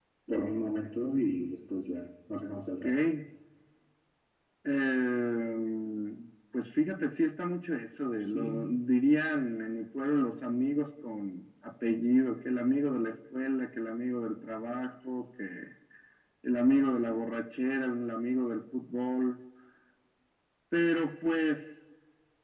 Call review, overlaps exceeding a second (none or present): none